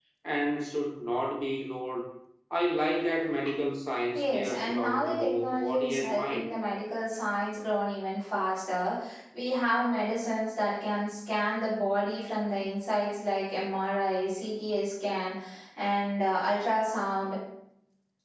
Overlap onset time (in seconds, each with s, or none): 4.1 s